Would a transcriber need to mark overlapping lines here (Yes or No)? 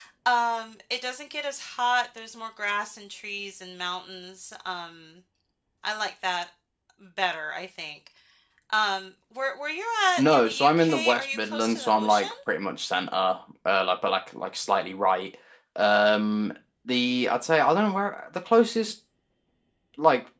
Yes